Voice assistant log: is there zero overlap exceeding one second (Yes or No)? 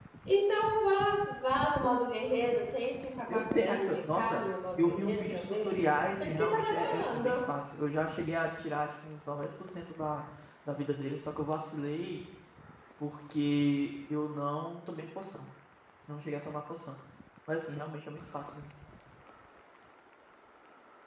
No